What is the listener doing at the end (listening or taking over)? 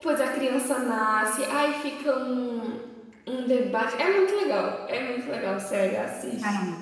taking over